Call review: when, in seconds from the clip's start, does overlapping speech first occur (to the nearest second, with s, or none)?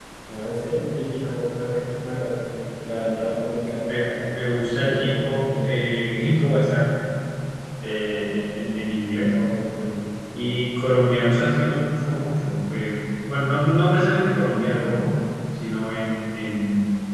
4 s